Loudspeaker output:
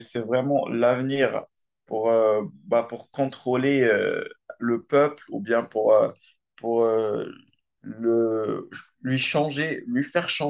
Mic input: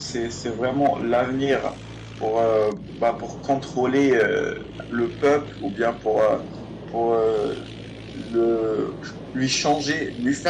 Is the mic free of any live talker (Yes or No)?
Yes